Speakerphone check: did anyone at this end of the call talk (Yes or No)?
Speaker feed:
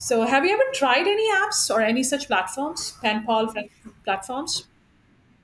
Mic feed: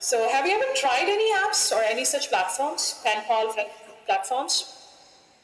No